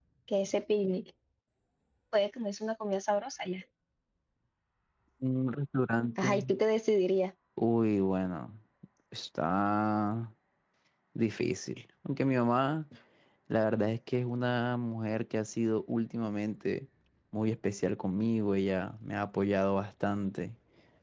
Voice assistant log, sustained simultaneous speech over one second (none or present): none